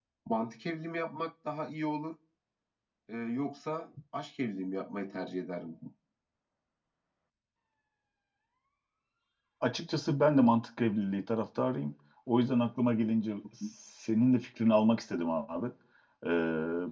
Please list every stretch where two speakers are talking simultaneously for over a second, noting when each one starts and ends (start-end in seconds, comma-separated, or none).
none